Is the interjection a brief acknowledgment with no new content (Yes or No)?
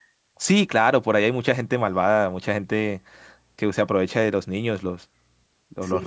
No